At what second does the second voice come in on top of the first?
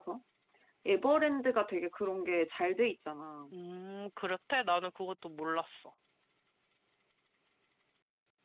none

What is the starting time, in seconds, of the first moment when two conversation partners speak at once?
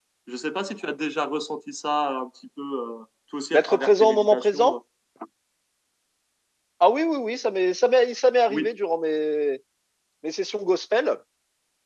3.5 s

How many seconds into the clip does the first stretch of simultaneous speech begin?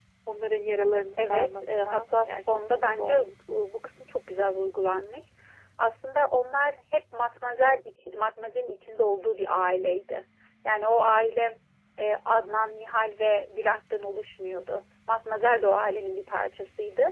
1.2 s

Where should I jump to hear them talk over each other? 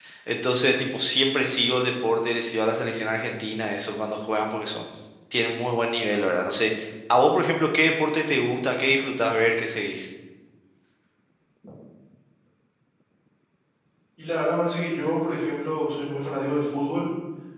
none

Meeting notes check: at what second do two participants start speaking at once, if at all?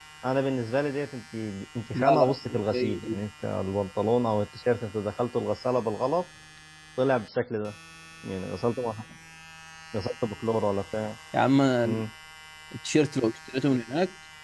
1.9 s

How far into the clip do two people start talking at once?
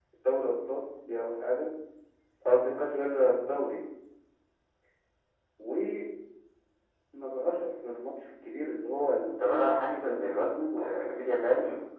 9.4 s

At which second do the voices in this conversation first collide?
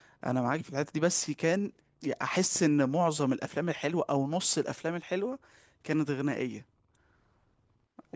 none

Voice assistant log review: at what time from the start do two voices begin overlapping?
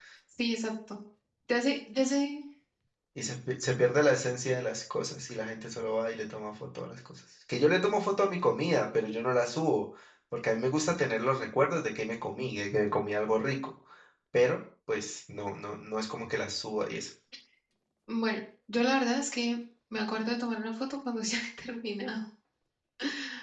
none

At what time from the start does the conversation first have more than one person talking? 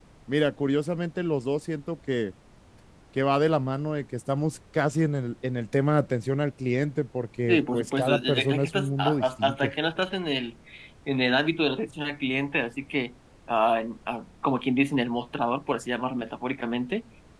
7.5 s

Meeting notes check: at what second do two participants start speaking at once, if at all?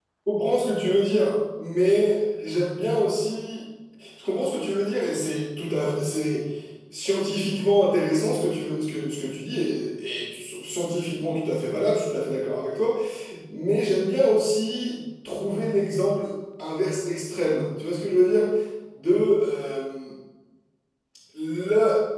none

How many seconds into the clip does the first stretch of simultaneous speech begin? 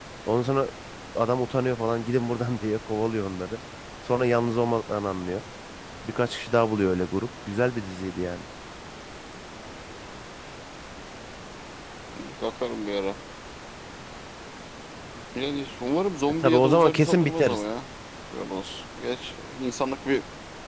16.4 s

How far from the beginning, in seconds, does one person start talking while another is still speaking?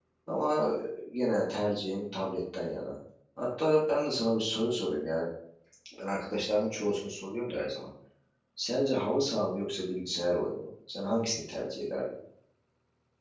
none

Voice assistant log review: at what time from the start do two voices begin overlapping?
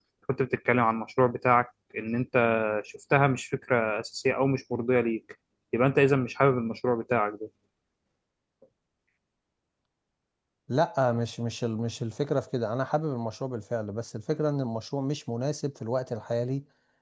none

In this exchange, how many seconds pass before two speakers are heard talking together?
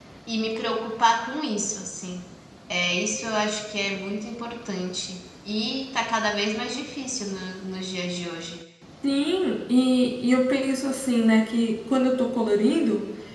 none

